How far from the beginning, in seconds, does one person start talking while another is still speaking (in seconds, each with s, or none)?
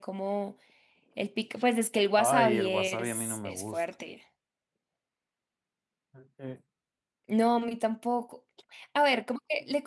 2.2 s